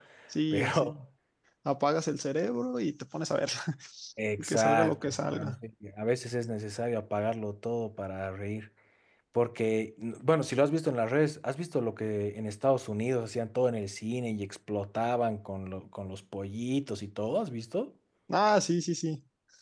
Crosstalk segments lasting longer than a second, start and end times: 4.4-5.6

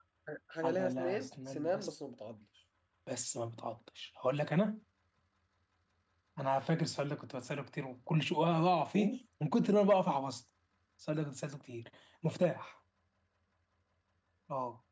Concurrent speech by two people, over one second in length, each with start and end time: 0.6-1.9

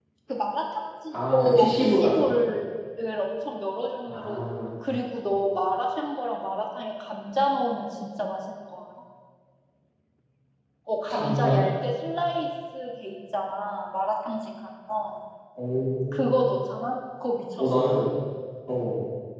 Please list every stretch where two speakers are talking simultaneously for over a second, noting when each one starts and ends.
1.1-2.4

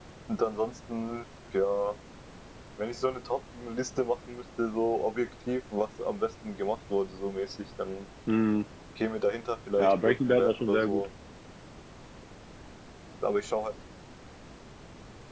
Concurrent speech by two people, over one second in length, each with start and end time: 9.8-11.1

